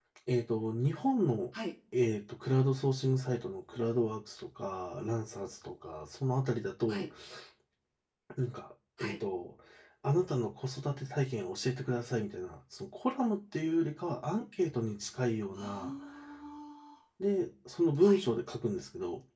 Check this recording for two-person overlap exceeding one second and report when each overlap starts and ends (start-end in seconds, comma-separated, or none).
none